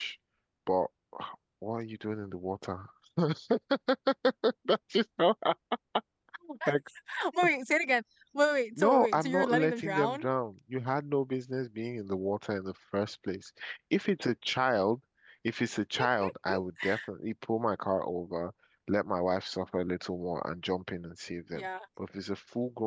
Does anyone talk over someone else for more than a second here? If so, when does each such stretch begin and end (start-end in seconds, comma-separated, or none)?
8.8-10.2